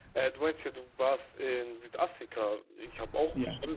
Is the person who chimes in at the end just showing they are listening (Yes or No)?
Yes